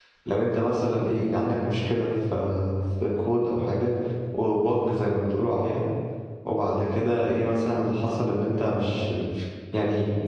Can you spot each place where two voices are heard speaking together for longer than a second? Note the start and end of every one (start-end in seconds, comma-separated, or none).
none